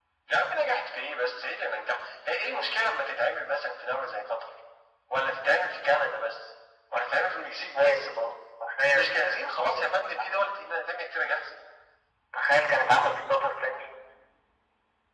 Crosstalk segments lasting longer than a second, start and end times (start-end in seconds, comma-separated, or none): 8.9-10.4